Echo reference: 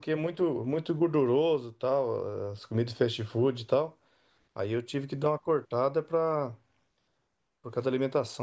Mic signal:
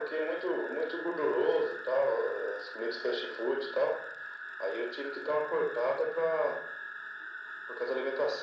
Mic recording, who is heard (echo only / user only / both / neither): echo only